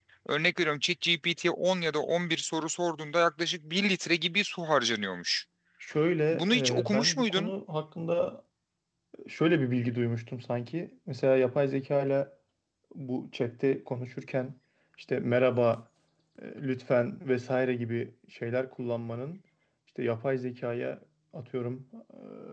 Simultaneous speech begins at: 6.3 s

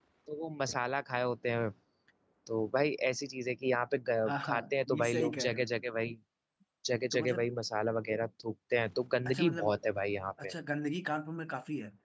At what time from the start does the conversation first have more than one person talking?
4.2 s

